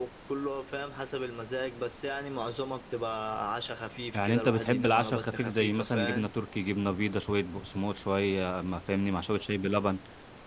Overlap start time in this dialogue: 4.1 s

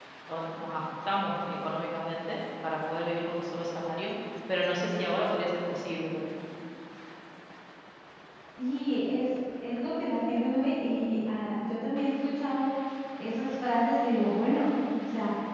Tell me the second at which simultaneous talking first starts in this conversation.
none

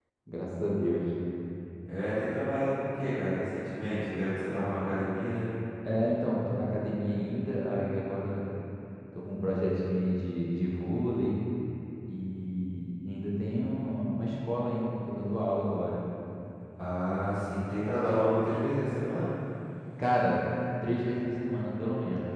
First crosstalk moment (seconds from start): none

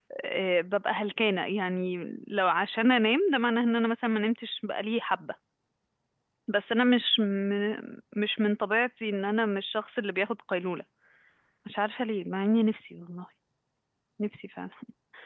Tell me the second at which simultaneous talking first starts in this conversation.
none

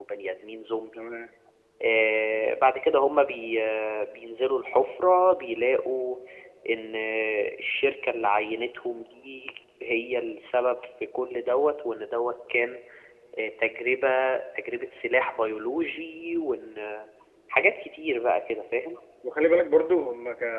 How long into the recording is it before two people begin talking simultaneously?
none

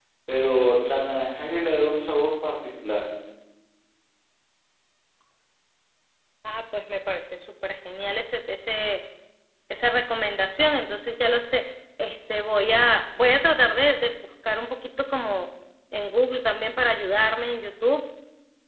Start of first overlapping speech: none

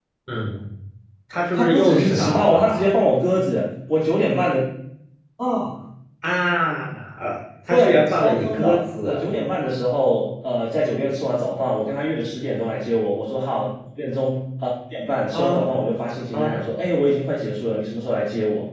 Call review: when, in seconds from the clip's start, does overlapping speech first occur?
1.5 s

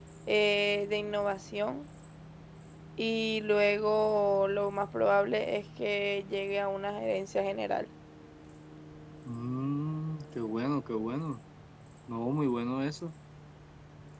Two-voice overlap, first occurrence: none

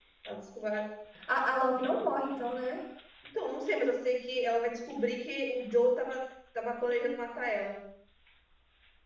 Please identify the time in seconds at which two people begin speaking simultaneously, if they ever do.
none

